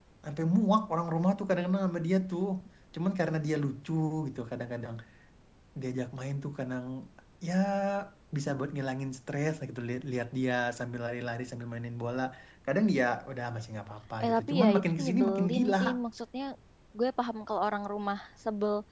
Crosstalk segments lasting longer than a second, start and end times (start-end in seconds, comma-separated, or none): 14.2-15.8